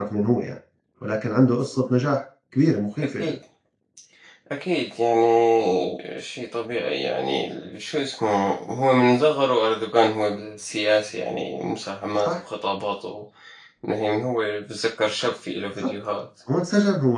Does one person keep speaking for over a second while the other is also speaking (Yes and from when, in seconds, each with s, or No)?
No